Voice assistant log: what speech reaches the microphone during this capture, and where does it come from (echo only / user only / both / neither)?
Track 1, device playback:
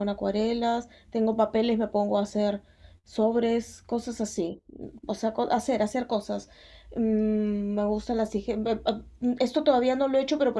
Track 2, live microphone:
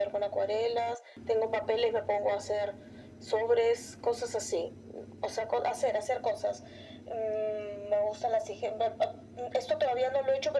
echo only